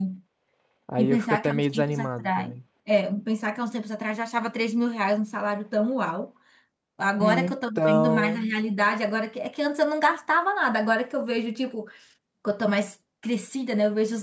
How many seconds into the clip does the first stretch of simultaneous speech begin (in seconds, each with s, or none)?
1.0 s